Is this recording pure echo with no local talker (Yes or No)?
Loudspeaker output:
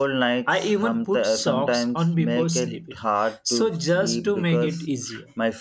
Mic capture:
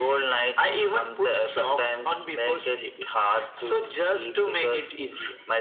Yes